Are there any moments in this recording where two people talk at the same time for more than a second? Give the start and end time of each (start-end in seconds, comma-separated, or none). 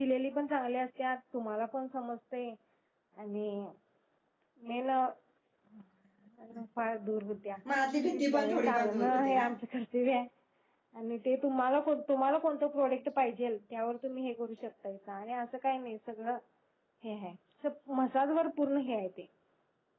8.1-9.4